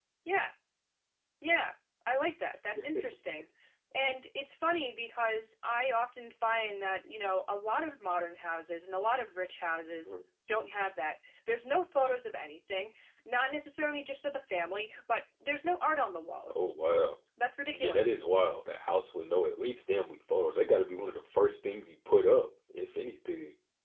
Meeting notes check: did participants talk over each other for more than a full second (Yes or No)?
No